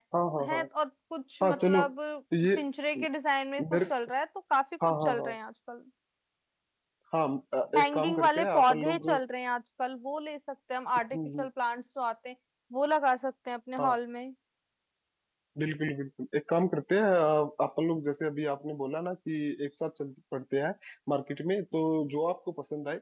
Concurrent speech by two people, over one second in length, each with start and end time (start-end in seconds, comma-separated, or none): 7.8-9.1